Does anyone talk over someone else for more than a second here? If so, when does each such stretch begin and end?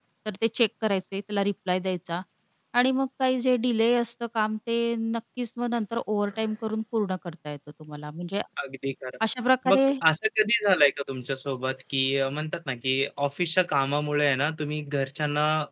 none

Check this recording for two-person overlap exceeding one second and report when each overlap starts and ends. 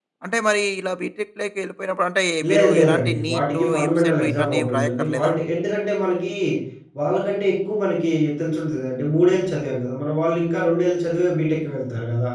2.5-5.3

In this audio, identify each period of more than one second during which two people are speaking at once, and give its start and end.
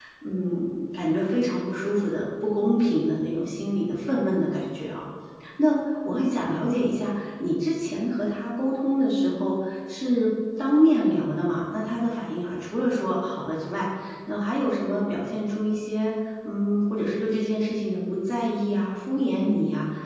none

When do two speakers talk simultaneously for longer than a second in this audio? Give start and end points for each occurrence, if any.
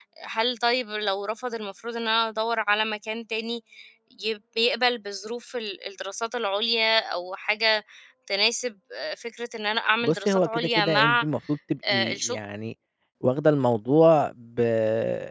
10.0-11.2

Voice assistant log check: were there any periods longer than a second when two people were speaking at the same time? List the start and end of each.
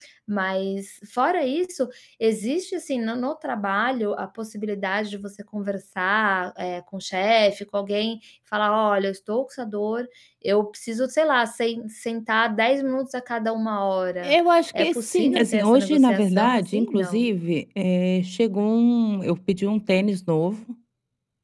14.8-17.2

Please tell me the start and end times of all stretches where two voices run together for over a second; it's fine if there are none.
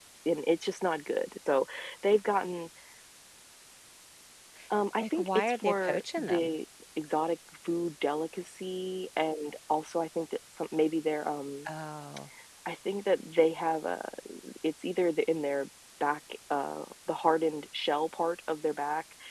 5.0-6.5

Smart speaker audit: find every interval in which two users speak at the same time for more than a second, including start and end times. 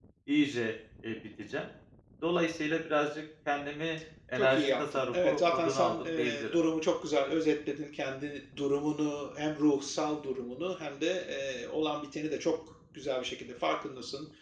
4.4-6.6

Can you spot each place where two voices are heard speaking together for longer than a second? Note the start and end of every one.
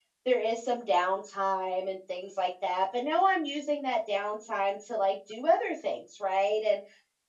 none

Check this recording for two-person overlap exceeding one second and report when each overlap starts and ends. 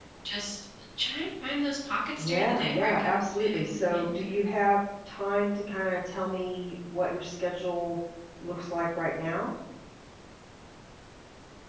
2.2-4.4

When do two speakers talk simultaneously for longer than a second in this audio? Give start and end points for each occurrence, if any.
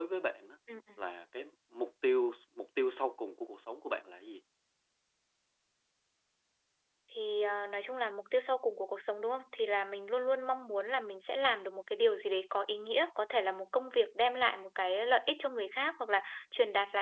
none

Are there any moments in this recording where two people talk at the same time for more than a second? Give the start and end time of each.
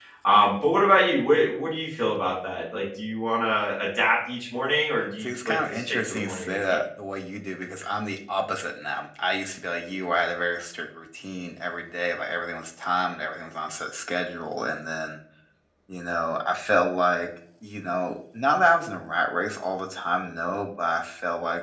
5.2-6.8

